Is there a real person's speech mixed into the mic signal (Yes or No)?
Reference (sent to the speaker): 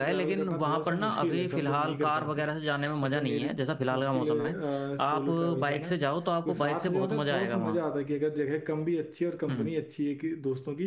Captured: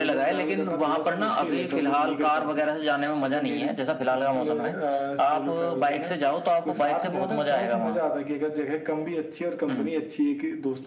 No